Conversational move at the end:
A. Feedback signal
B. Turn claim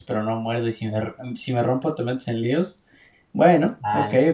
B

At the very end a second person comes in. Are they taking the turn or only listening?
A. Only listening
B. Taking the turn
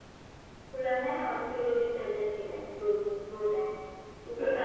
B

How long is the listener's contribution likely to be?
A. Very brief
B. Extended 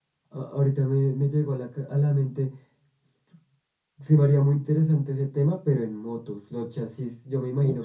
A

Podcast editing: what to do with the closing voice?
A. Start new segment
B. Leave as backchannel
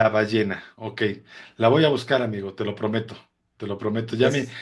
B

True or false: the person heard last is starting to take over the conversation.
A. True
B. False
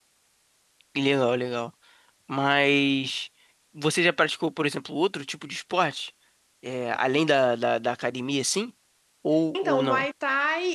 A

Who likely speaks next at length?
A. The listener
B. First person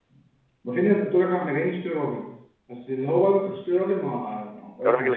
B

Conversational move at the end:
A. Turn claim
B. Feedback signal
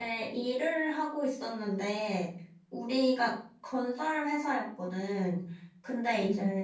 B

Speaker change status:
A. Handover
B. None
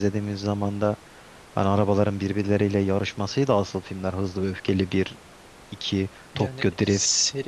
A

